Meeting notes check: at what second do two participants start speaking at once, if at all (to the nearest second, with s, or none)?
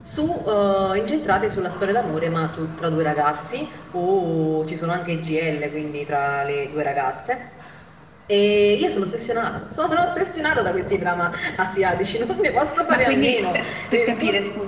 13 s